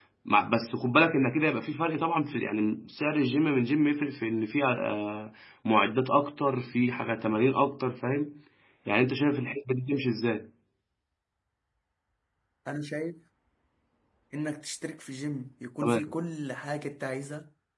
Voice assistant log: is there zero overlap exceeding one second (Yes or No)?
Yes